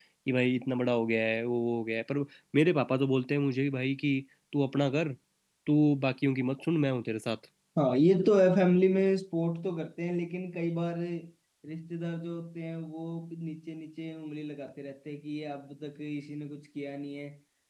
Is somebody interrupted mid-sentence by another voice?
No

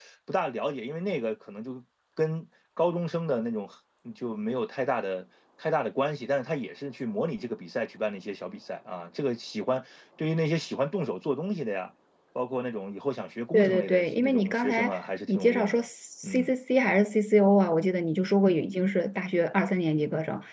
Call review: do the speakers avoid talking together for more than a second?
No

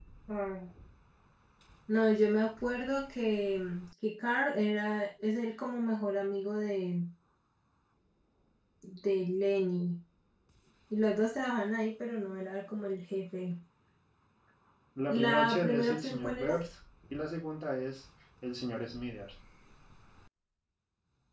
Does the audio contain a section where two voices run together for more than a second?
Yes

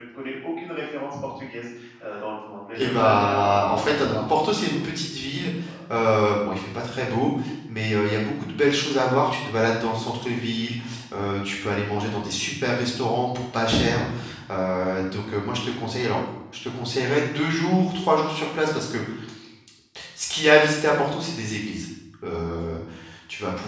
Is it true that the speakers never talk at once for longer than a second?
No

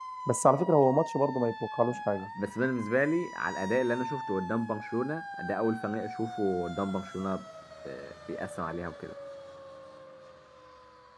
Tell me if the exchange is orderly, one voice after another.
Yes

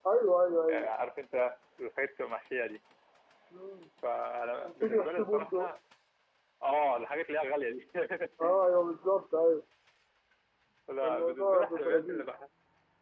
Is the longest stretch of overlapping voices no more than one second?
No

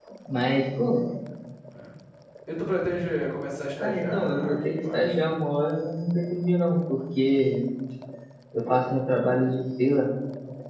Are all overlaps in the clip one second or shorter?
No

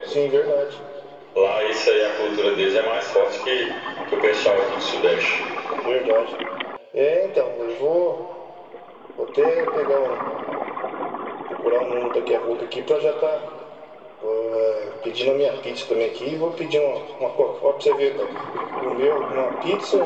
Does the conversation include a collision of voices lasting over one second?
No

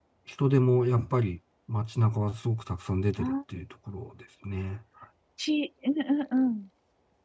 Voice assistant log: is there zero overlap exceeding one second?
Yes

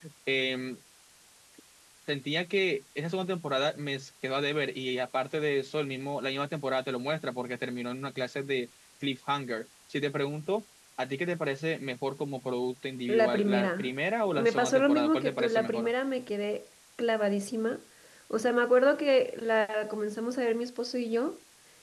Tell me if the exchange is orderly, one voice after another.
No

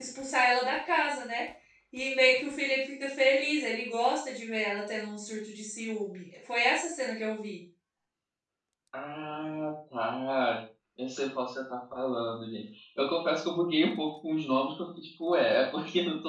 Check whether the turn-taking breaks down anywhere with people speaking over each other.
No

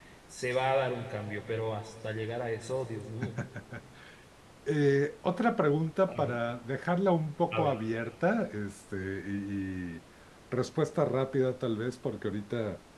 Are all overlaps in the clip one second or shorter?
Yes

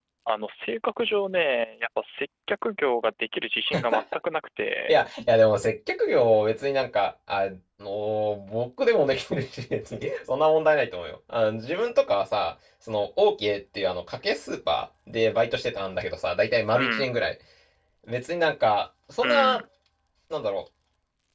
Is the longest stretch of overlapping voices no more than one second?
Yes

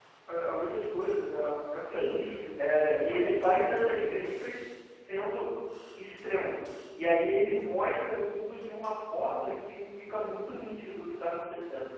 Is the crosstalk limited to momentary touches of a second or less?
No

